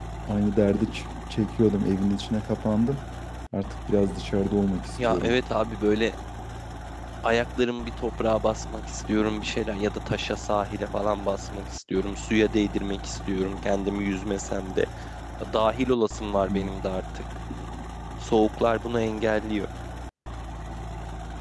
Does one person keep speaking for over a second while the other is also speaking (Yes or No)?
No